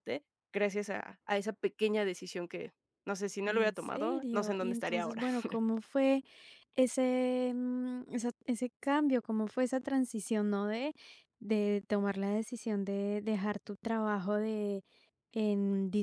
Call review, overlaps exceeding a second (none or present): present